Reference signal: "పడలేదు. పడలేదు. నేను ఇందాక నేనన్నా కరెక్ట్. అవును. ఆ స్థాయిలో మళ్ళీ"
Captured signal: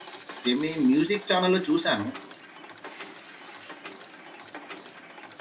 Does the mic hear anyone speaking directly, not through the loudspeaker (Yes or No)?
Yes